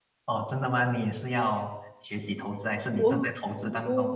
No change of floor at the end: No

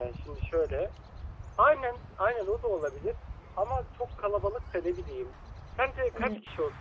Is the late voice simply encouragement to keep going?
Yes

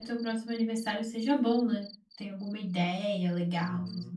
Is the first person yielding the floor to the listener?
Yes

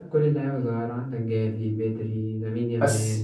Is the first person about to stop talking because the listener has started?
No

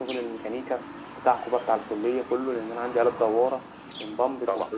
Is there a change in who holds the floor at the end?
No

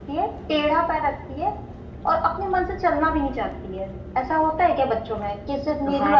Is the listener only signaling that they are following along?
No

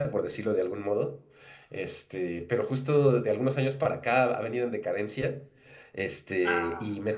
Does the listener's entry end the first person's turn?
No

